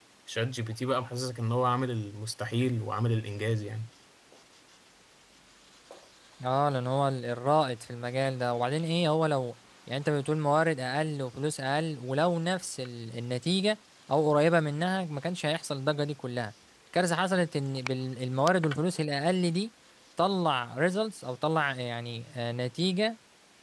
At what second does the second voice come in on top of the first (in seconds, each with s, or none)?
none